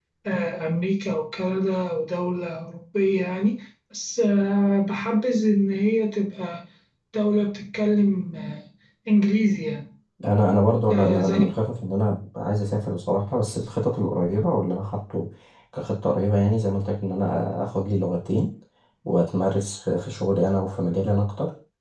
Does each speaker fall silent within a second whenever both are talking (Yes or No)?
Yes